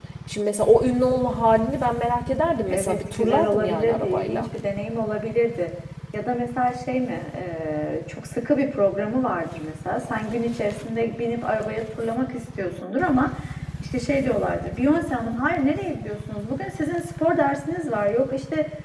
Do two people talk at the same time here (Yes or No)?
Yes